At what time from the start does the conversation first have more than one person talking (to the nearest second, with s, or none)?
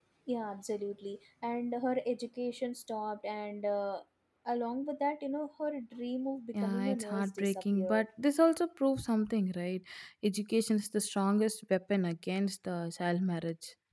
7 s